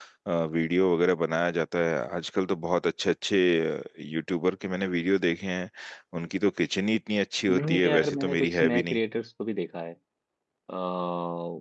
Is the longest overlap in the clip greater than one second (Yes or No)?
Yes